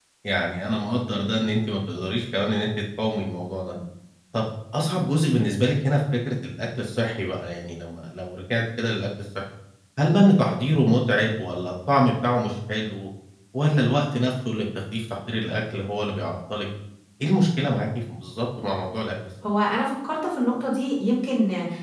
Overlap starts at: none

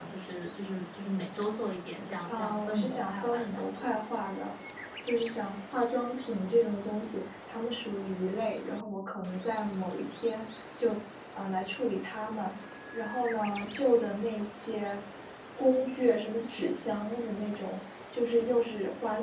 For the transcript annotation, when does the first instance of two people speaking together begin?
2.3 s

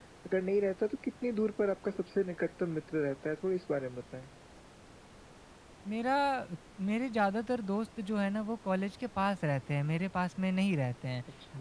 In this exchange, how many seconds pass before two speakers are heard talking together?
none

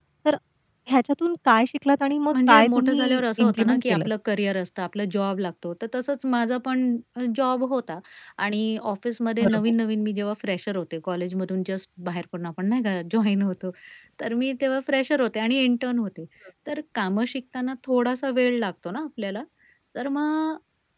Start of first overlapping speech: 2.3 s

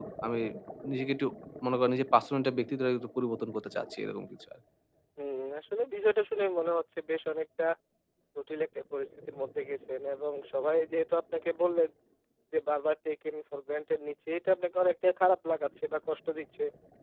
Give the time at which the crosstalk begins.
none

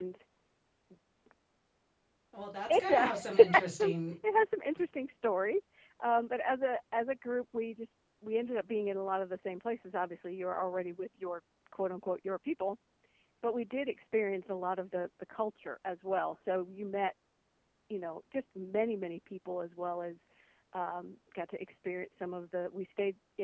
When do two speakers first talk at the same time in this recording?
2.7 s

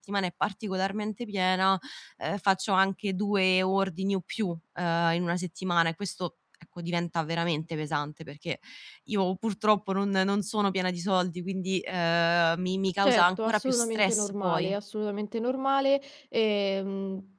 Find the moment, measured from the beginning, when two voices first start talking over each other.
13.0 s

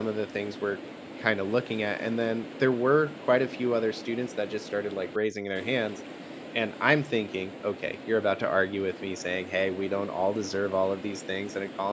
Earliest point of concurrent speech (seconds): none

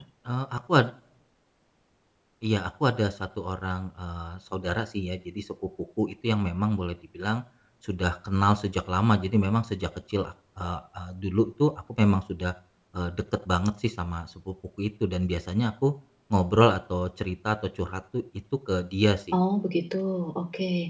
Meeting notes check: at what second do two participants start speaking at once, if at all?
none

